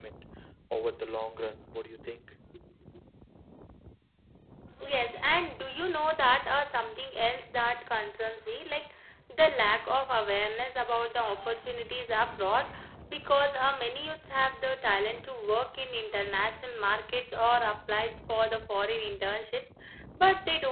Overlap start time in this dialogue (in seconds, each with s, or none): none